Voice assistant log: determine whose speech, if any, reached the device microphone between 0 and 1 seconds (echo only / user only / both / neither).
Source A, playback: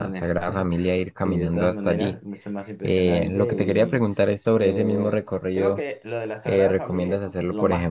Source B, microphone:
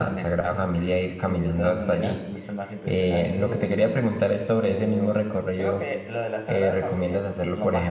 echo only